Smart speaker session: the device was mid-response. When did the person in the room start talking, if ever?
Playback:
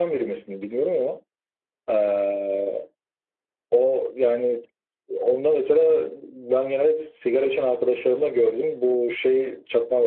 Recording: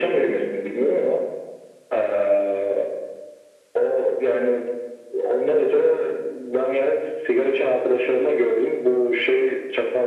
none

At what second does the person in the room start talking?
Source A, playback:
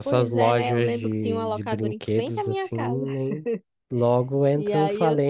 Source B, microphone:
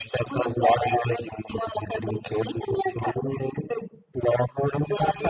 none

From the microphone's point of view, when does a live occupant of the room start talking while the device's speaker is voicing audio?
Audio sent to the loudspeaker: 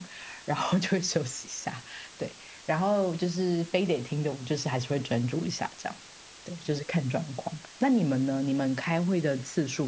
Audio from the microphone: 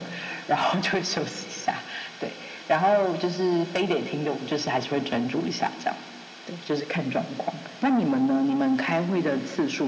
none

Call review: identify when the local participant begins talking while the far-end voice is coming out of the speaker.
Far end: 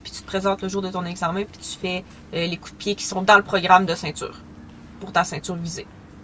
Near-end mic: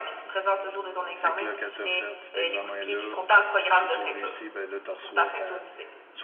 1.1 s

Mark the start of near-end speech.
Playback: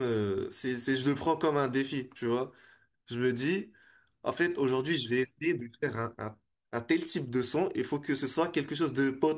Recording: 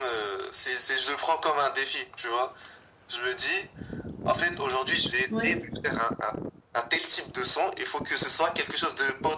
5.3 s

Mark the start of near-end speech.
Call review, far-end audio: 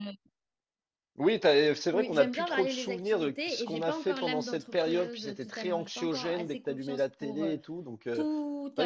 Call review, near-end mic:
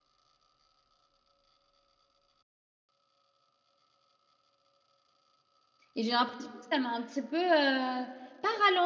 5.9 s

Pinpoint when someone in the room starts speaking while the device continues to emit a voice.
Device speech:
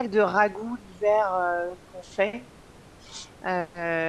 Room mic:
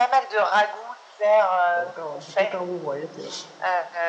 1.7 s

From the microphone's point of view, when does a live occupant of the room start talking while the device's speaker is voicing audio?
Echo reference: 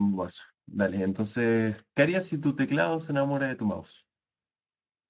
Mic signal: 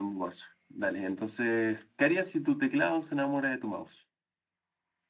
none

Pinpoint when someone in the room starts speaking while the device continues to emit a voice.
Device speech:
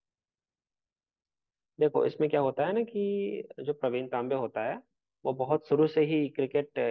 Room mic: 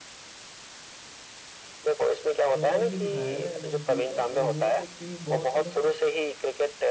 2.4 s

